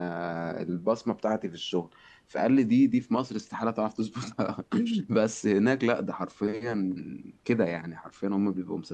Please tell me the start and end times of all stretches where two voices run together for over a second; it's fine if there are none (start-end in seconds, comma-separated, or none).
none